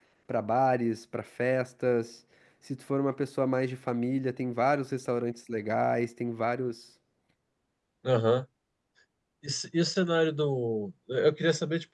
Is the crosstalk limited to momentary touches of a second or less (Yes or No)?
Yes